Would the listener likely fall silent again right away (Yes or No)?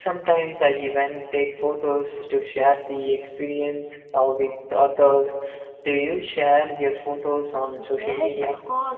No